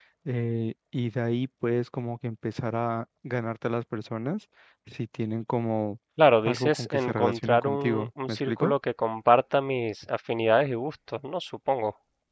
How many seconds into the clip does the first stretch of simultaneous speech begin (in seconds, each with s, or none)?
6.4 s